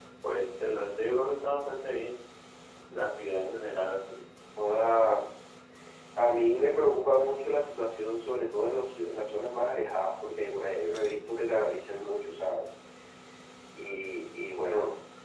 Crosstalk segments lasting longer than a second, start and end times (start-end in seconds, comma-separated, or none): none